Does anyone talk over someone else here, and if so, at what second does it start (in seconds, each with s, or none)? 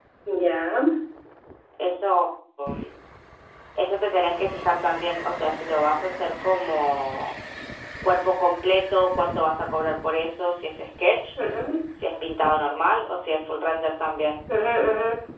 none